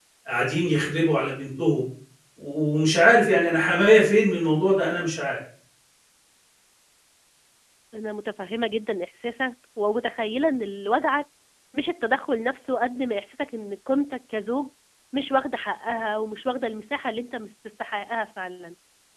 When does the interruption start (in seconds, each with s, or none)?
none